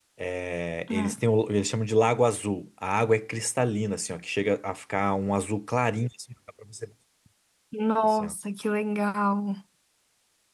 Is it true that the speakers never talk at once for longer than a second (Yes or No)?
Yes